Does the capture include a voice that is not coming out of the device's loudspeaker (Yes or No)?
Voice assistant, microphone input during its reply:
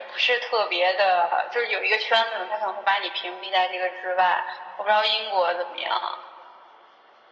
No